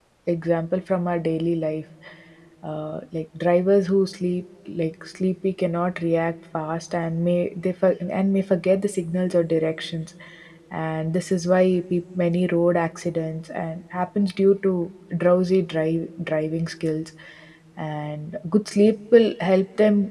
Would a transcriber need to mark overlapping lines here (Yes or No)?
No